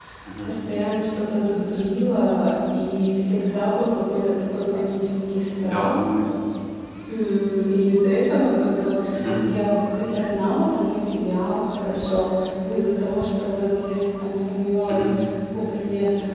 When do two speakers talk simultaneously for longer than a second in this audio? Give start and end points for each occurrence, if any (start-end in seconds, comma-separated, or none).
none